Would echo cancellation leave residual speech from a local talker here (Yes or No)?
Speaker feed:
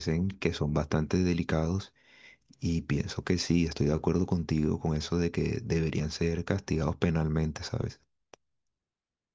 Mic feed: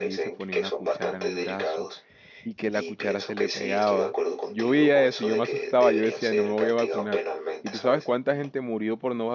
Yes